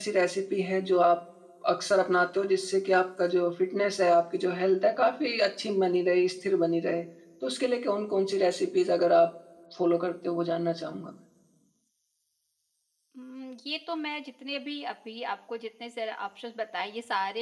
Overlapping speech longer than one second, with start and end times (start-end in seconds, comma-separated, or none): none